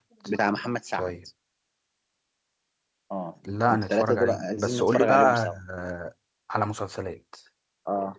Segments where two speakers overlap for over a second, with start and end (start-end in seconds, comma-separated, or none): 3.7-5.6